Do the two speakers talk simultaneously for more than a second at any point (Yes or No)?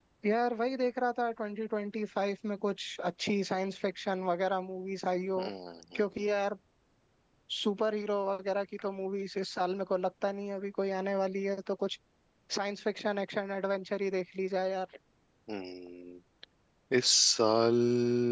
No